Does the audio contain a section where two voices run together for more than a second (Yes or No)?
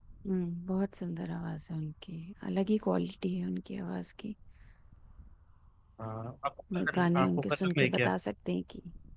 Yes